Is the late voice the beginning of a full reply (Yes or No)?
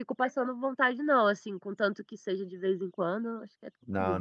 Yes